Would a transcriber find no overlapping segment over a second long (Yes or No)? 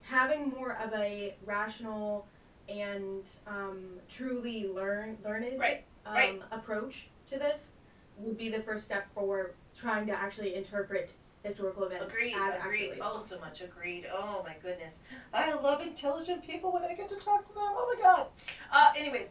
No